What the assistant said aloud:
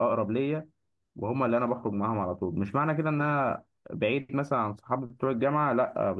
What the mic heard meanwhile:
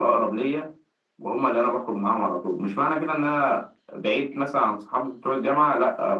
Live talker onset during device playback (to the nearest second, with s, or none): none